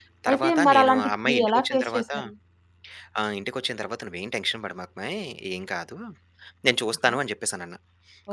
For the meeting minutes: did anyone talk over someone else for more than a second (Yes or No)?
Yes